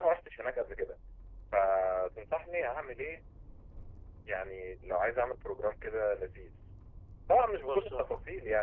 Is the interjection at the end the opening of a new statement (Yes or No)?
No